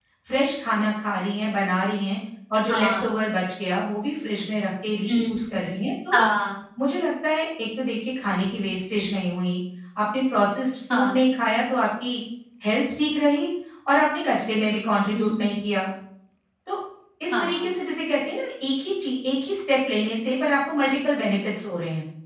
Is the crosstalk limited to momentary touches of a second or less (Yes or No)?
Yes